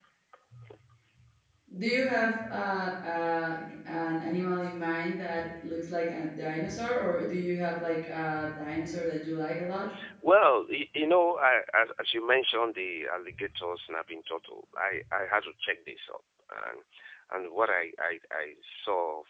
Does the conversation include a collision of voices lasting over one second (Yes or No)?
No